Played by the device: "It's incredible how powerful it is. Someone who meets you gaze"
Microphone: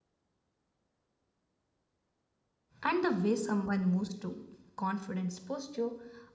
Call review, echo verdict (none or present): none